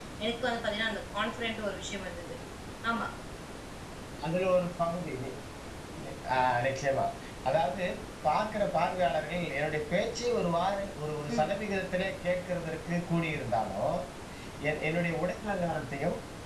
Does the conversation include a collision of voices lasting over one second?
No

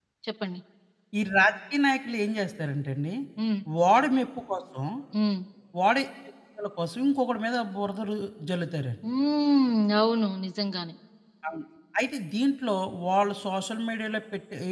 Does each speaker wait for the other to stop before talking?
Yes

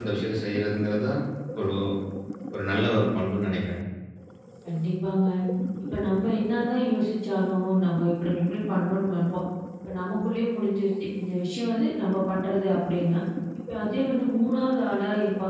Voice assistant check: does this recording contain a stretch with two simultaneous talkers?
No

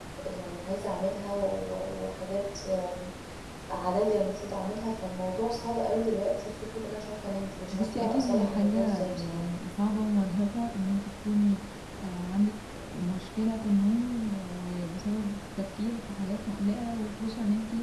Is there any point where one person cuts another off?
Yes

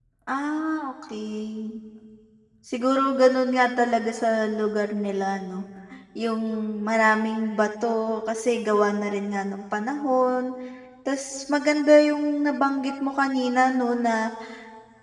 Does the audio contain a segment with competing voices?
No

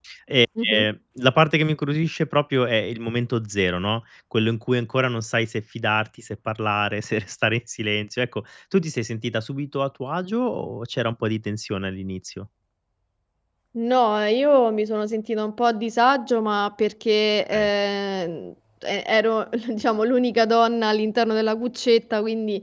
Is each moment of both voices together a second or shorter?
Yes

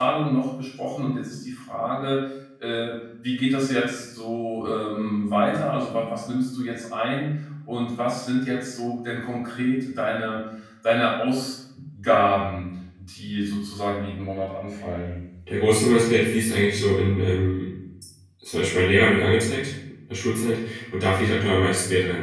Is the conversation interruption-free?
Yes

